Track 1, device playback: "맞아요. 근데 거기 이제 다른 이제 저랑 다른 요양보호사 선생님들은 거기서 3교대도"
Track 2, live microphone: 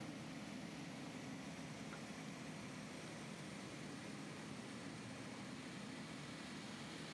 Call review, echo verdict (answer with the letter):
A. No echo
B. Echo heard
A